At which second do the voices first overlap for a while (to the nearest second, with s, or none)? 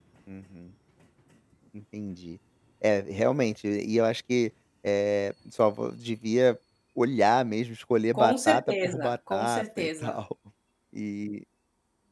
8 s